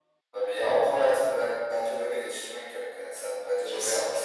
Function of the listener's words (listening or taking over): taking over